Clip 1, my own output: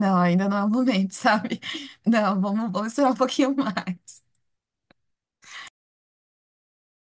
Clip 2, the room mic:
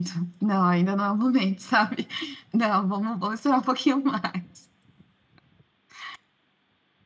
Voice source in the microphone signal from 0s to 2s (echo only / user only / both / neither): echo only